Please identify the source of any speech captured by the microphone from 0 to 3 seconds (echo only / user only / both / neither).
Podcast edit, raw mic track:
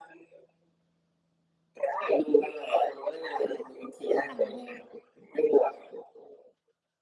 echo only